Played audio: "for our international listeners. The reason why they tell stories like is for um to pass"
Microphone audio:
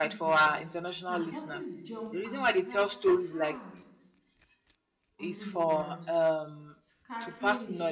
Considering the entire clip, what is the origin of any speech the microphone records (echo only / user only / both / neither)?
both